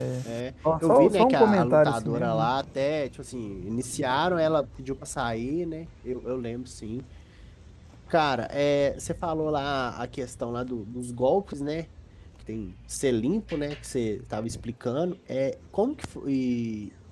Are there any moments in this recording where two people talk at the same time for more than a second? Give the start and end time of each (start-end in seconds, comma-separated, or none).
0.8-2.5